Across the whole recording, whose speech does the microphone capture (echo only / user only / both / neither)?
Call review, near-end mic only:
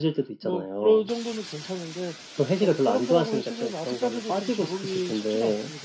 echo only